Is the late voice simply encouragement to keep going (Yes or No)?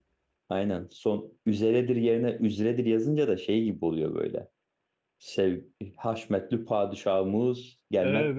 No